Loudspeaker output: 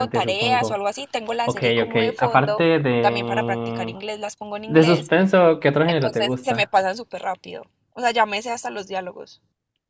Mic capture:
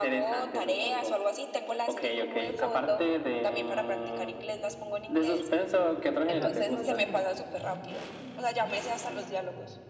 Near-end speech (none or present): present